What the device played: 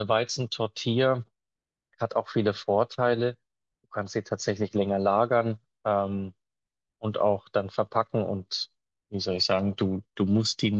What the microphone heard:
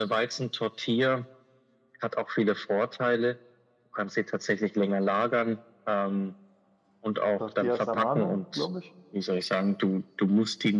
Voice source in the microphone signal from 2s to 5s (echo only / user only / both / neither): echo only